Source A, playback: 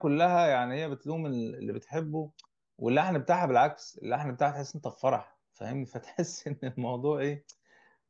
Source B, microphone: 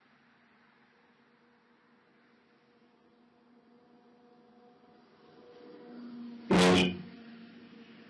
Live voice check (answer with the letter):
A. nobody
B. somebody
B